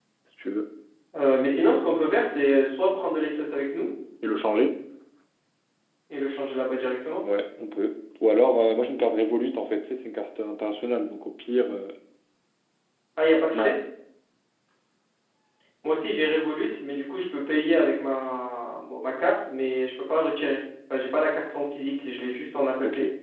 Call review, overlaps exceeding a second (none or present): none